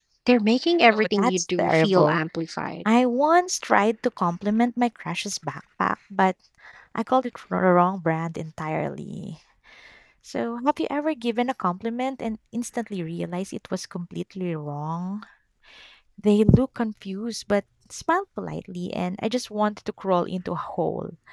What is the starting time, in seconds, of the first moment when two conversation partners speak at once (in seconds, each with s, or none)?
0.9 s